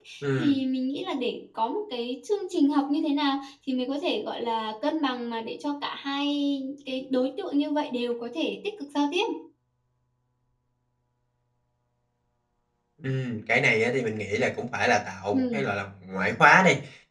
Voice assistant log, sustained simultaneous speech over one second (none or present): none